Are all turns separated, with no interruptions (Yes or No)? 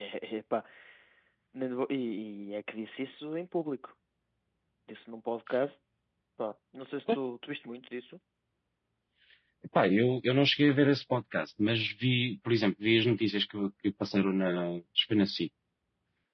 Yes